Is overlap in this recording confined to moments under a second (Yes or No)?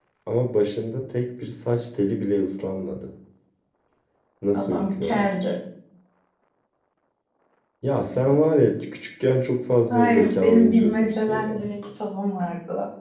No